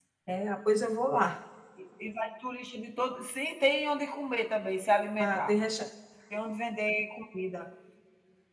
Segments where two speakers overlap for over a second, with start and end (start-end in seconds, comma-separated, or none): none